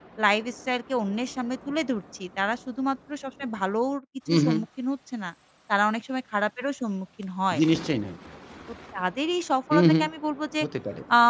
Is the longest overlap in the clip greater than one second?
No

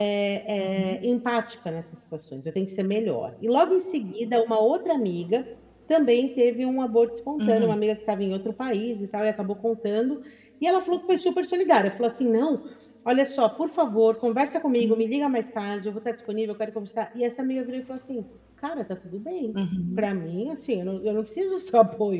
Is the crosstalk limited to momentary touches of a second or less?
Yes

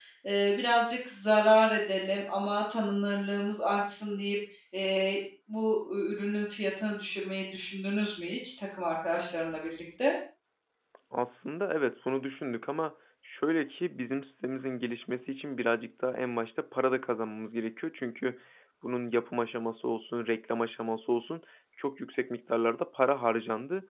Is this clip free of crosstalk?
Yes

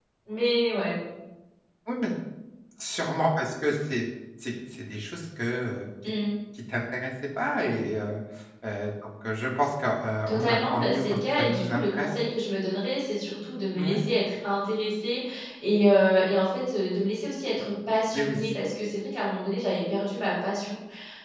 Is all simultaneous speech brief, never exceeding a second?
No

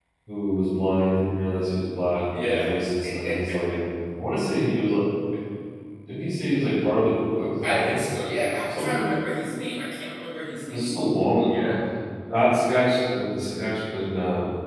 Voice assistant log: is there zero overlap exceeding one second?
Yes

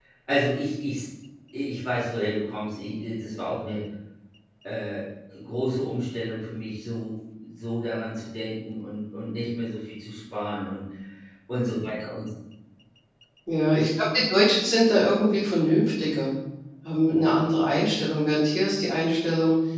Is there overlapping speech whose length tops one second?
No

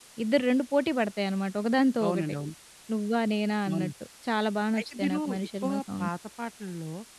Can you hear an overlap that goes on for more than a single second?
Yes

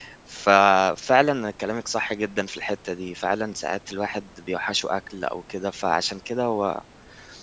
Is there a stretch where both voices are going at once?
No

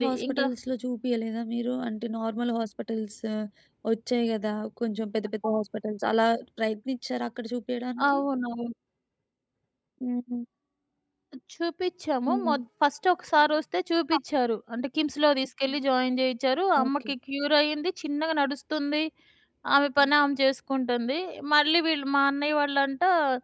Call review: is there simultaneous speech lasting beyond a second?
No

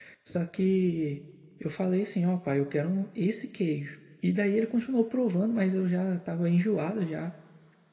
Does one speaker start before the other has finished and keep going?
No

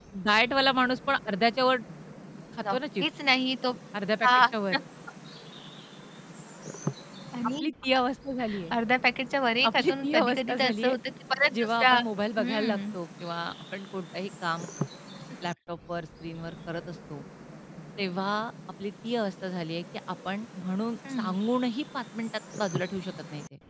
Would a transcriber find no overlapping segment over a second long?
No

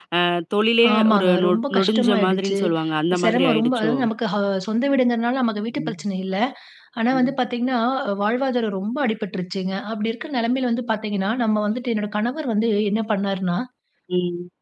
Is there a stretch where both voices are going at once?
Yes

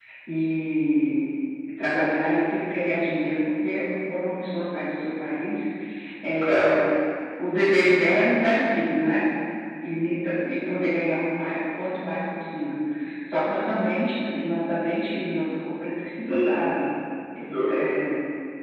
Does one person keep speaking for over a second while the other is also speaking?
No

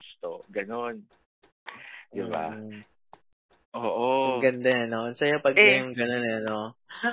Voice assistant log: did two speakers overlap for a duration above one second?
No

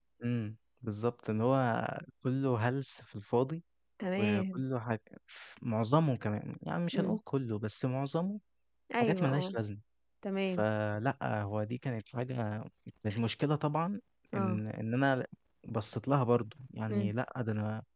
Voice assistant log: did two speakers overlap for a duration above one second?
No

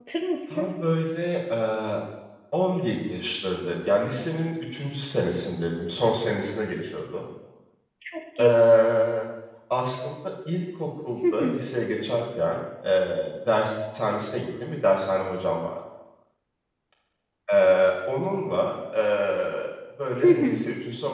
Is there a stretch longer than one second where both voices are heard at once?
No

